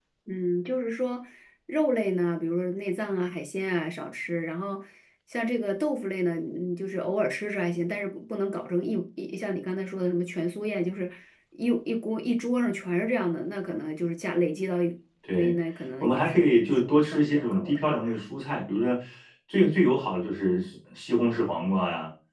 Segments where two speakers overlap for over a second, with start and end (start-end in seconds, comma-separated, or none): 16.0-18.0